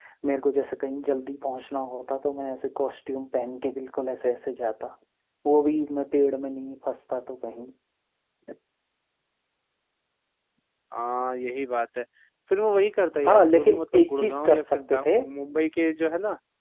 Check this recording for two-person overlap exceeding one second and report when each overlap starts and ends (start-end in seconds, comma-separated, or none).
13.3-15.2